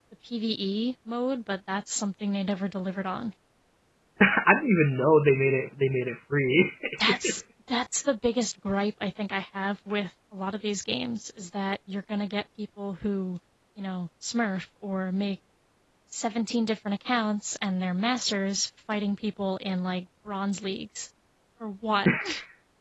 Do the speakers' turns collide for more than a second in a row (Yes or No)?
No